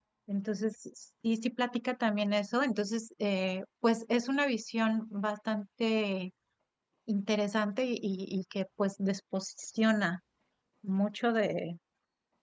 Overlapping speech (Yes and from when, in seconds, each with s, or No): No